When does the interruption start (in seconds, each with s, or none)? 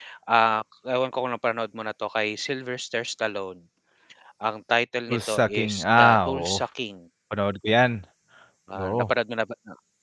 5.1 s